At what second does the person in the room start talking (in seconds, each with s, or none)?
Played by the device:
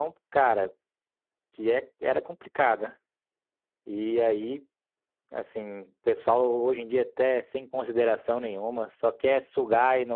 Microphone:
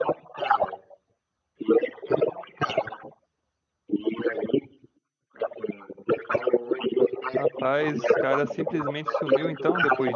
7.3 s